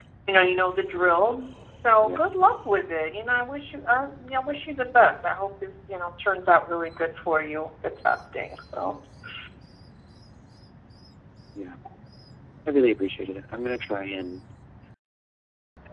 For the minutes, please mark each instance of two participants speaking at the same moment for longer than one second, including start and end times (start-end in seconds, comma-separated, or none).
none